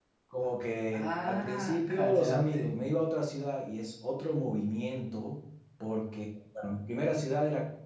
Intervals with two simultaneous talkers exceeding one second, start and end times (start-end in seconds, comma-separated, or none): 0.9-2.7